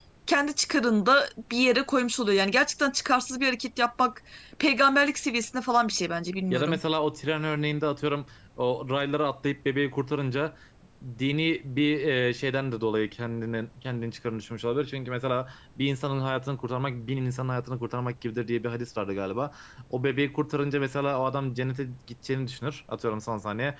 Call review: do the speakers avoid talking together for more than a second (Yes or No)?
Yes